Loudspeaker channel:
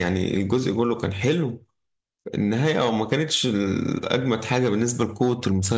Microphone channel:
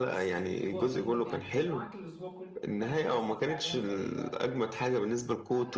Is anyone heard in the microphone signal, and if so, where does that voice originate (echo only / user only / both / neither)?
both